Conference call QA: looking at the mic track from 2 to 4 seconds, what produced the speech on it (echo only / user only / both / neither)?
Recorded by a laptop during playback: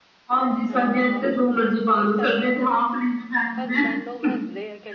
both